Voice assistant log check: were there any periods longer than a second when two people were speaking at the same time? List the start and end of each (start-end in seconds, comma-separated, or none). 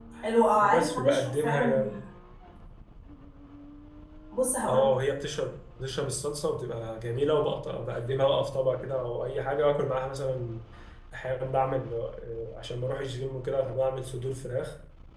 0.6-2.0